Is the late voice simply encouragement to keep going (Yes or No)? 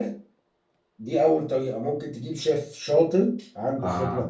Yes